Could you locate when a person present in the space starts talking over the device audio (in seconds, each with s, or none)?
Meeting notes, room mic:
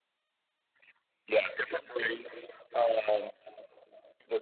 none